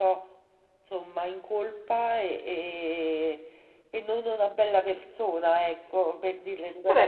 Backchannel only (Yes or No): No